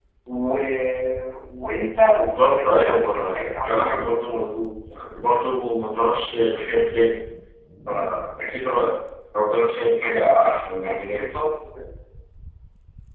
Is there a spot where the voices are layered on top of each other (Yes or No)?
Yes